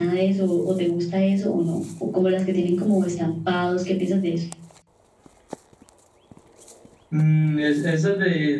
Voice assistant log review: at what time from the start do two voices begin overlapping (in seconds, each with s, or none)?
none